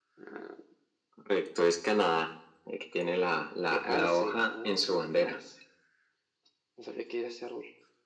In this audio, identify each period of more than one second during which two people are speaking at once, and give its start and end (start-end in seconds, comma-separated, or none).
3.7-5.4